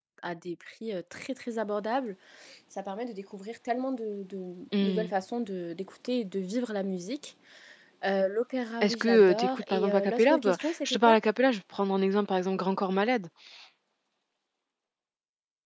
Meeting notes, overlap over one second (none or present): present